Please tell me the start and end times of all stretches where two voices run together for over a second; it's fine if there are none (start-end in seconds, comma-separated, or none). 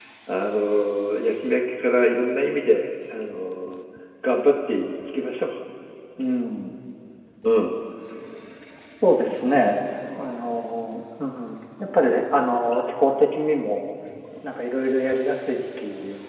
none